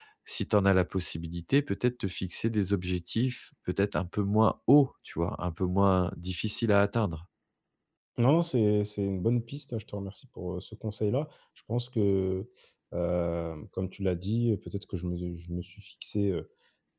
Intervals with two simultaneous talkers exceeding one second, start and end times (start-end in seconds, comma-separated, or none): none